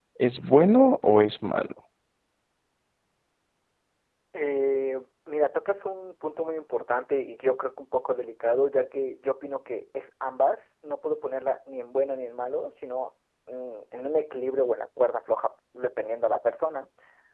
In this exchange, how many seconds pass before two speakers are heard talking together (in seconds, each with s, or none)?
none